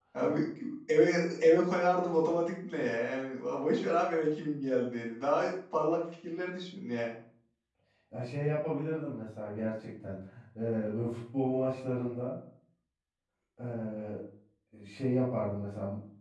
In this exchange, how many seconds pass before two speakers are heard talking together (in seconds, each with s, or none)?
none